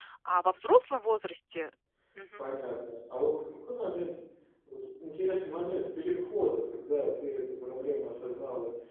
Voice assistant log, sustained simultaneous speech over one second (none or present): none